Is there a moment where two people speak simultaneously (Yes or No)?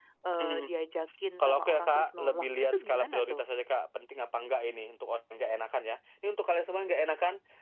Yes